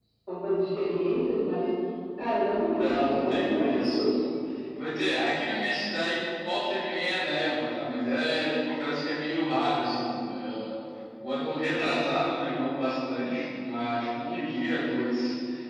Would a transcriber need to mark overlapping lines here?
Yes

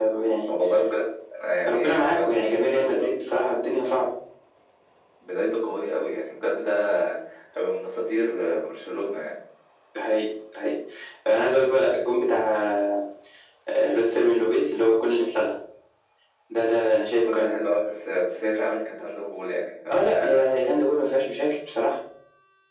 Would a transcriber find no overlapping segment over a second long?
No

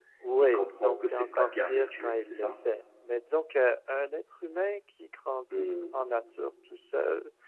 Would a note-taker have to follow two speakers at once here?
Yes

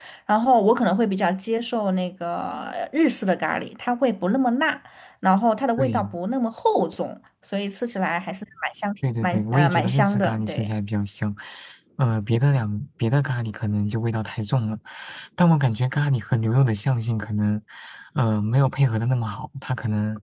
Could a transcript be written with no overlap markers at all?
No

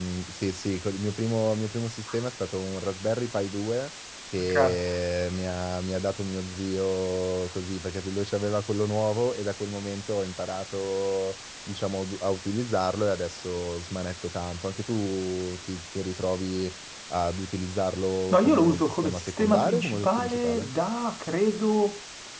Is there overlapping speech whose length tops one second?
Yes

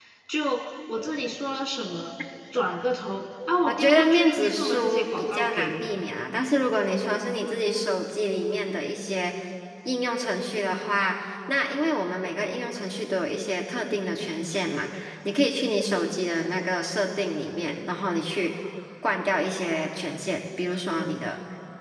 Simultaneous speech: Yes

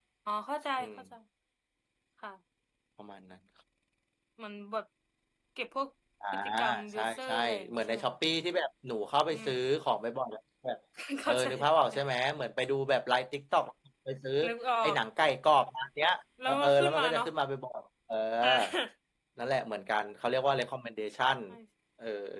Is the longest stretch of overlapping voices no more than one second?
No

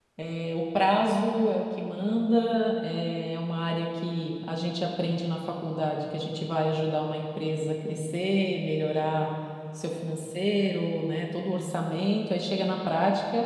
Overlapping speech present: No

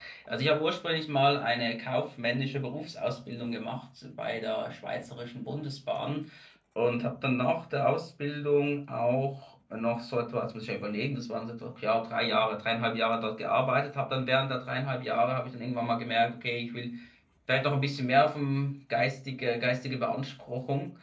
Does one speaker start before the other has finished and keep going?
No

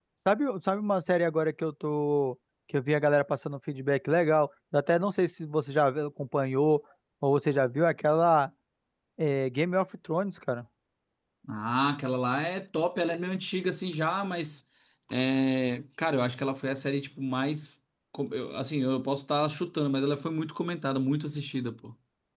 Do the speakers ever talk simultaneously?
No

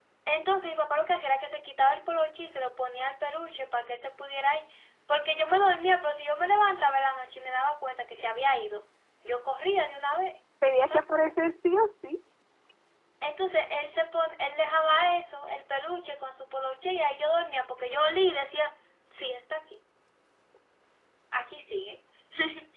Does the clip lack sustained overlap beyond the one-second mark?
Yes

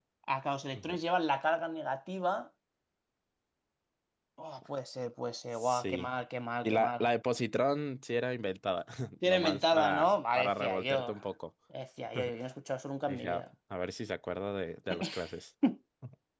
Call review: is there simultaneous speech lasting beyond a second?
Yes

